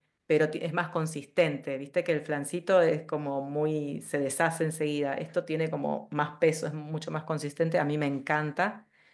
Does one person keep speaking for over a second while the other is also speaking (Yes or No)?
No